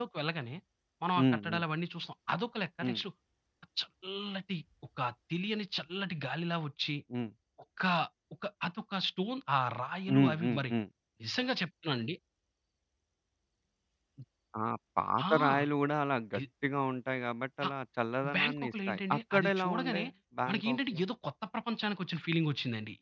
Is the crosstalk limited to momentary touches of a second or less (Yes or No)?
No